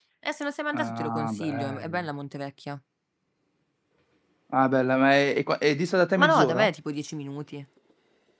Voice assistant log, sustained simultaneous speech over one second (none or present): present